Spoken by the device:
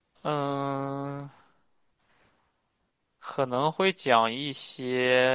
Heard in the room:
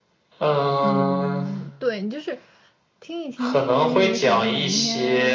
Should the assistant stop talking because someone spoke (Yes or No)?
Yes